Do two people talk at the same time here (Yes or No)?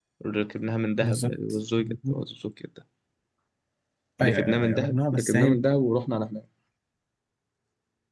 Yes